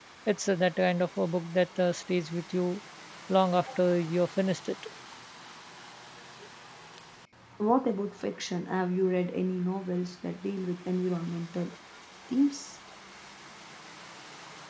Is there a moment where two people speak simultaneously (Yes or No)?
No